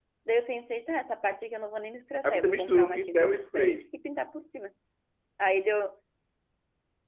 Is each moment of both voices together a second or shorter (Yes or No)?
No